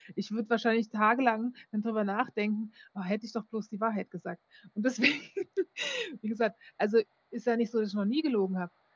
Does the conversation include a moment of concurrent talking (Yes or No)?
No